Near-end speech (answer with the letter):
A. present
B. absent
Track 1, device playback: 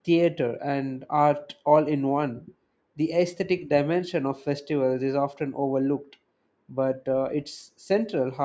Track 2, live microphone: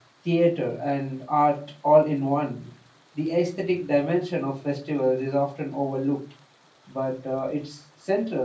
B